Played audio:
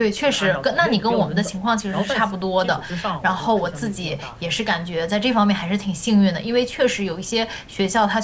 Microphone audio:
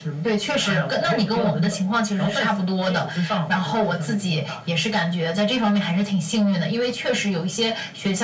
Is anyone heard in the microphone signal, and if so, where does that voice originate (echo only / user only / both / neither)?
echo only